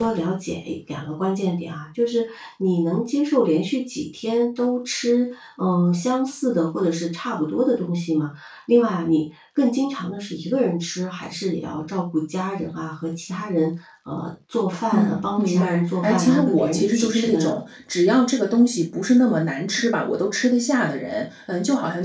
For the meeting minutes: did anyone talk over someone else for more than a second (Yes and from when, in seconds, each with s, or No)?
Yes, from 14.9 s